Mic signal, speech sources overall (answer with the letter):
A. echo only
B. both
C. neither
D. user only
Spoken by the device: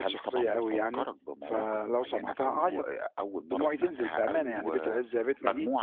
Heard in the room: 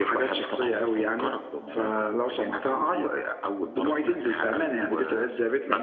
A